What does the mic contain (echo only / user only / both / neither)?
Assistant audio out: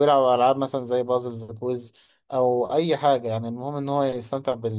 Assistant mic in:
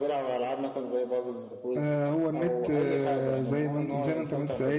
both